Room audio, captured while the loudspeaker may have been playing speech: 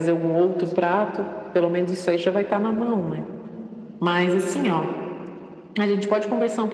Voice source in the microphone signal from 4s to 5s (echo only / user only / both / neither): echo only